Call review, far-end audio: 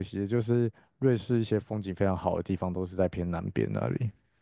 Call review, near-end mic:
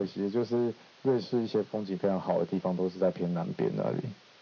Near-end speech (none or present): none